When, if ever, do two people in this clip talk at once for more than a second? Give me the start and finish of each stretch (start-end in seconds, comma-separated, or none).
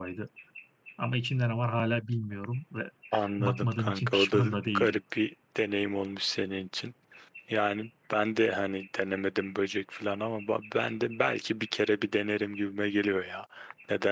3.4-5.0